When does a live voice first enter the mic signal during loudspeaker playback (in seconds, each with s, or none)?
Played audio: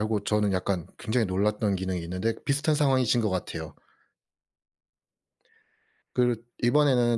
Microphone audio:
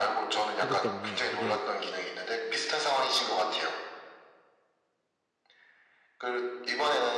0.6 s